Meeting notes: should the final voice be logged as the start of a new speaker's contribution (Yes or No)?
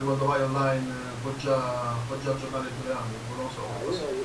Yes